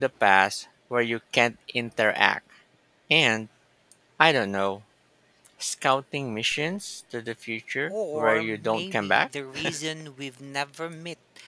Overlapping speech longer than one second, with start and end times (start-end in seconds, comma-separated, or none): 7.9-9.2